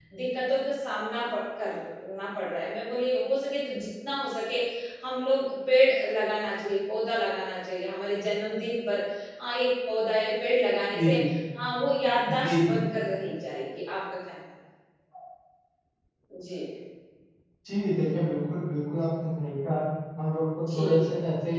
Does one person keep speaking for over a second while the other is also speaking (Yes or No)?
No